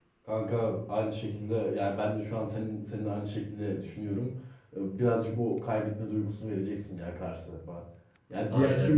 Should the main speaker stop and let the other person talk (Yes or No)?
No